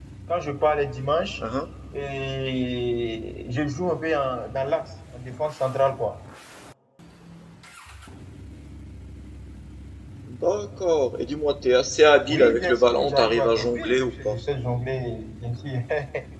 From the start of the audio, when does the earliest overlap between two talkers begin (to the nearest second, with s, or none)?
12 s